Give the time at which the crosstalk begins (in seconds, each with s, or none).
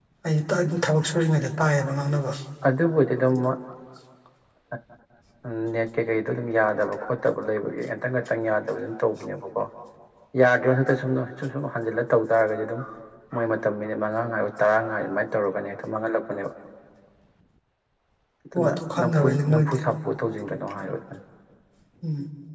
18.5 s